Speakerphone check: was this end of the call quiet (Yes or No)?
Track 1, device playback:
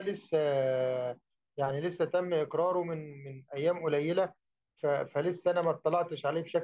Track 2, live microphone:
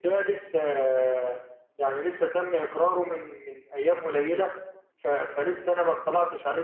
Yes